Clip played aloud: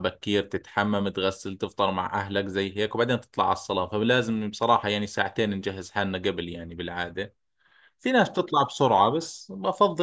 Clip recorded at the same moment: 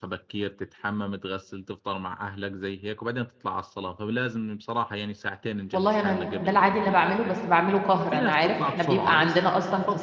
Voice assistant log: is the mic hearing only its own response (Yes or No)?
No